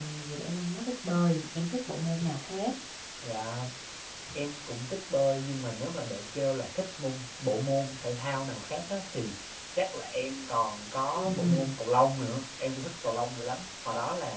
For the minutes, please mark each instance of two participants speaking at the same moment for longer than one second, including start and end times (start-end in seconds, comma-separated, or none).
none